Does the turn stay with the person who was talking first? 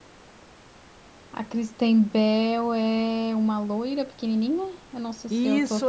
No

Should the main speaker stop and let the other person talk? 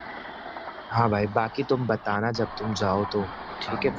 Yes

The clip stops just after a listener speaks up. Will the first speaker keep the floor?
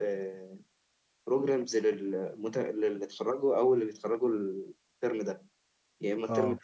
Yes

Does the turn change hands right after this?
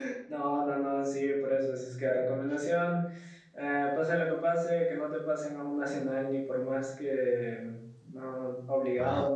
Yes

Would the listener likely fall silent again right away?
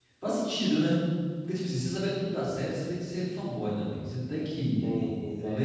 Yes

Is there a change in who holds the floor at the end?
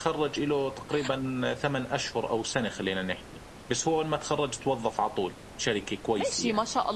Yes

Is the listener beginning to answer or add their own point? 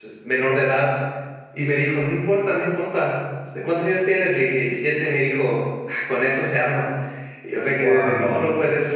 No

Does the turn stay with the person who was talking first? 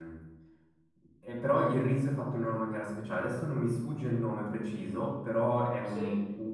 Yes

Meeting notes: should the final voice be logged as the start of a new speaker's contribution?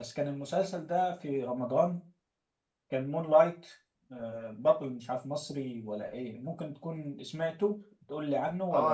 Yes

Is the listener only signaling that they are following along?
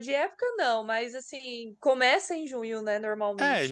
No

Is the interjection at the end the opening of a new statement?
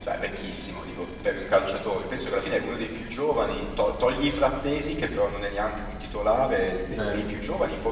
No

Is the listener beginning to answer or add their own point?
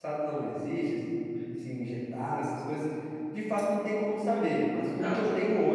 No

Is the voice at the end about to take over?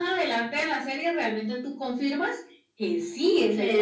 Yes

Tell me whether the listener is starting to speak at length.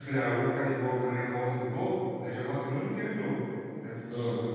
Yes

